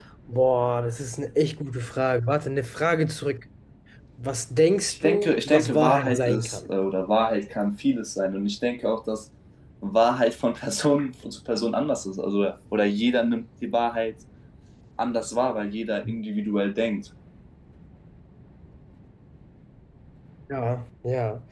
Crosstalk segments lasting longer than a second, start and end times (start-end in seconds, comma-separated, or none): 4.9-6.6